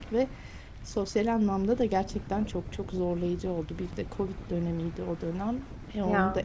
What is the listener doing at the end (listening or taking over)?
listening